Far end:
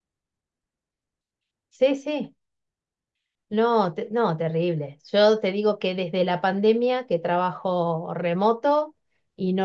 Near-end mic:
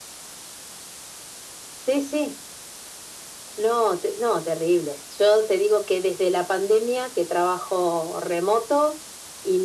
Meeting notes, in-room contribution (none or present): none